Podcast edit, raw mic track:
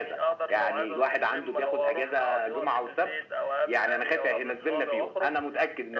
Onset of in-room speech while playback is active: none

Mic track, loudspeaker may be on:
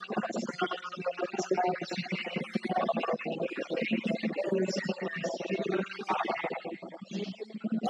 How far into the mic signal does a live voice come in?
none

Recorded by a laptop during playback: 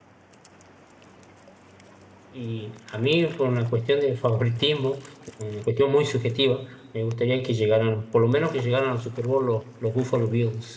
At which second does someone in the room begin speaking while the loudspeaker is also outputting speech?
2.3 s

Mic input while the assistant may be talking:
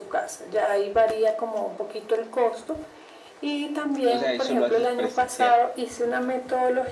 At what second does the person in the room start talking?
4.1 s

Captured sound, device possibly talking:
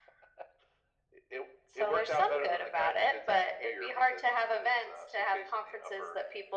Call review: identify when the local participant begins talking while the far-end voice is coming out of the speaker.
none

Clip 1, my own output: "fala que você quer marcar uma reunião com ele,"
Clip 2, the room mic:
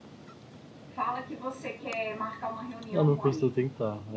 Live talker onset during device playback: 2.9 s

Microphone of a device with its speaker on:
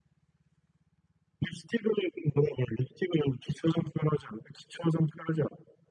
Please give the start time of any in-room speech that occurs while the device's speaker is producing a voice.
none

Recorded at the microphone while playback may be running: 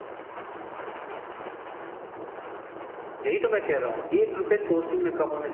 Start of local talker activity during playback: 3.2 s

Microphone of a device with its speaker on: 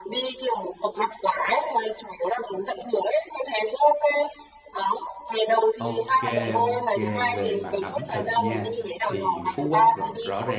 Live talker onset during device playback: 5.8 s

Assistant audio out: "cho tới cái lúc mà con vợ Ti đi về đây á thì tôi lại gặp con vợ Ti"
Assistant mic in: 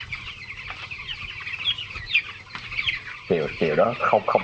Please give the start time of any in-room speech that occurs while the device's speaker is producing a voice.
3.3 s

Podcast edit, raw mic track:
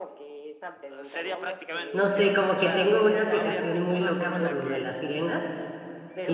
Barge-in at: 1.9 s

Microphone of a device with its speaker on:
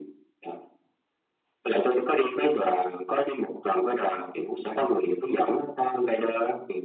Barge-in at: none

